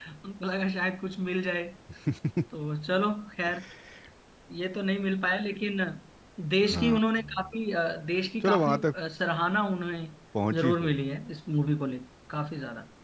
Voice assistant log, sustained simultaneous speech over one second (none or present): none